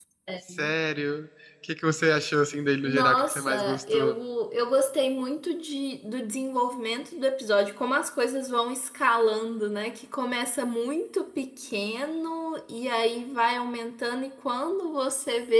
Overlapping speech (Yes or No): Yes